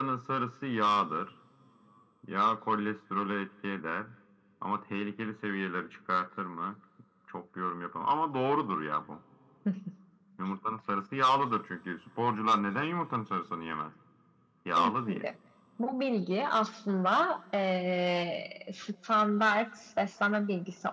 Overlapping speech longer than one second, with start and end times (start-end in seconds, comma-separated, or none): none